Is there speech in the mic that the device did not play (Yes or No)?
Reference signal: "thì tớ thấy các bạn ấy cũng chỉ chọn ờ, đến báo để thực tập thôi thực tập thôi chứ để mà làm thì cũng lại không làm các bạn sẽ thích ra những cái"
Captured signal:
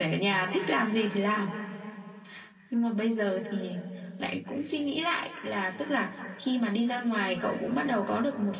Yes